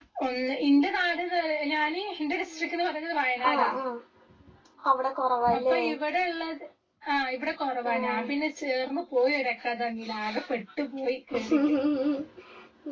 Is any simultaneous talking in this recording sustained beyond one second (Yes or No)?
No